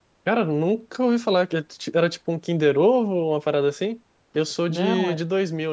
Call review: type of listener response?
listening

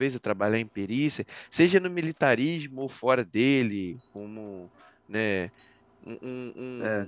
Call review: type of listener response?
taking over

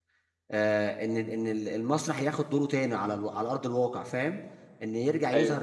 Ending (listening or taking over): listening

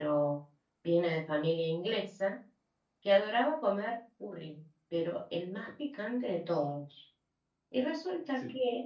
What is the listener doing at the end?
listening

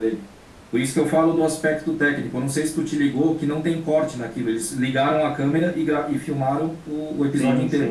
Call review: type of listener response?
taking over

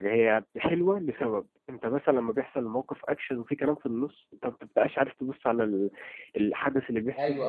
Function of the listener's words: listening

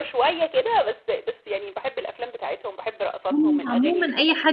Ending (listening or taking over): taking over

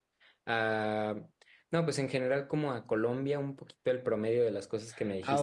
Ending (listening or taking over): taking over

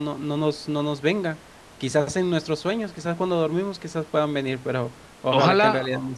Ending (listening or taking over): taking over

